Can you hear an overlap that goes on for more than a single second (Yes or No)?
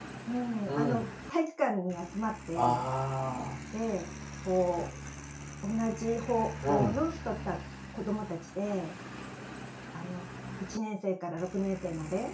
No